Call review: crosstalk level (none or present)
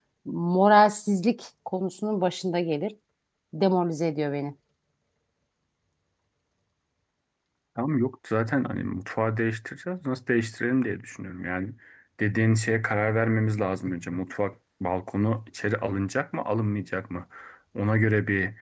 none